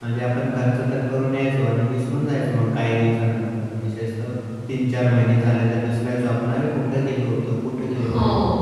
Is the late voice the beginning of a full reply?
Yes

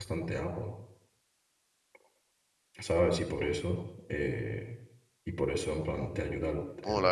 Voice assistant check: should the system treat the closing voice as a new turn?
Yes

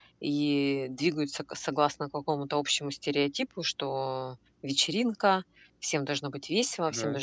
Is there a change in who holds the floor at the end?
No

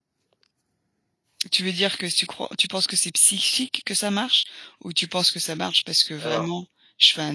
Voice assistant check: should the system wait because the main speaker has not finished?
Yes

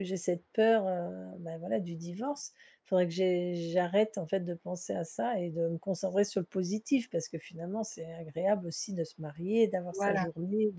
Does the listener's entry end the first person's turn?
No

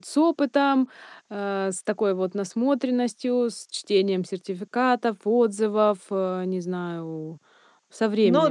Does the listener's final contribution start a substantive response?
Yes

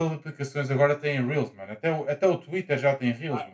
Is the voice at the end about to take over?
Yes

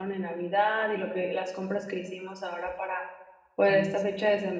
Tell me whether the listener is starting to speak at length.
No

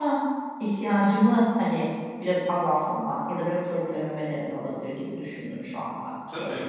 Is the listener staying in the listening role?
No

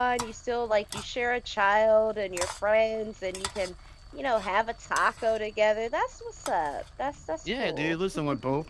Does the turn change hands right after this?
Yes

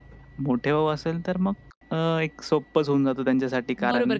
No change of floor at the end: No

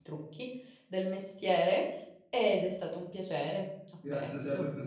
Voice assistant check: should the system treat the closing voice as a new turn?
Yes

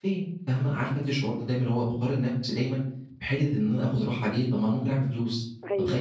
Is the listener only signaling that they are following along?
Yes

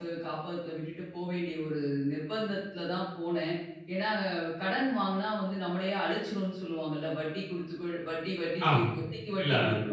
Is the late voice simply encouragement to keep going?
No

